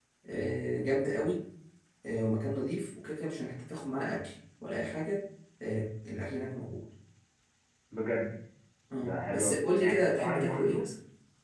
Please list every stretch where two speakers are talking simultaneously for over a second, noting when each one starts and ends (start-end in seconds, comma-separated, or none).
9.0-10.8